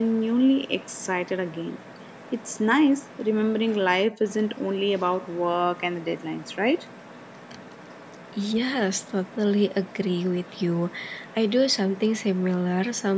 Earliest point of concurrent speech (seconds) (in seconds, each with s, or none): none